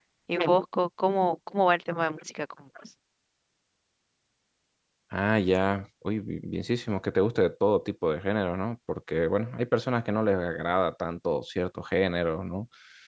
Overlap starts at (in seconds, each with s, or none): none